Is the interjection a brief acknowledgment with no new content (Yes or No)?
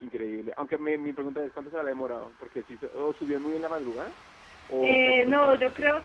No